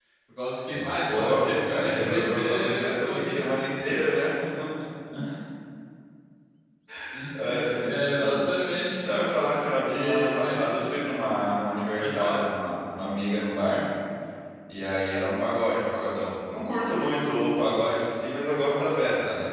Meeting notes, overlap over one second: present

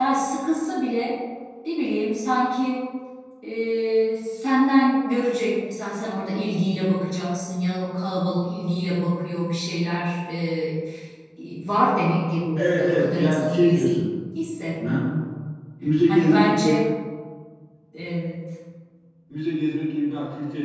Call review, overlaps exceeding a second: present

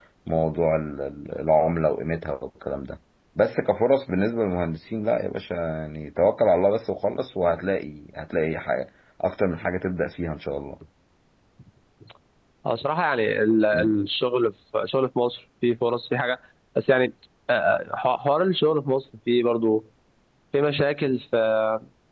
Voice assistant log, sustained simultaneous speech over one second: none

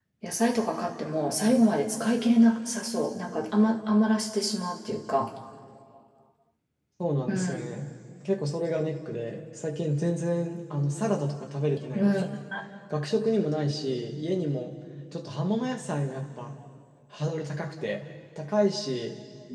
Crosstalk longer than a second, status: none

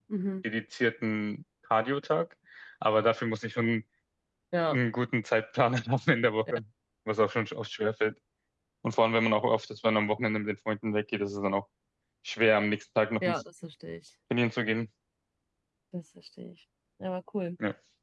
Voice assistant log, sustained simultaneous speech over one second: none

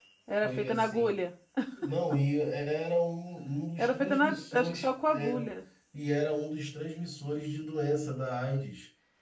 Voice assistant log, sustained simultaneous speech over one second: present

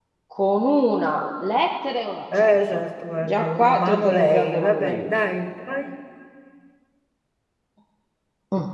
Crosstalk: present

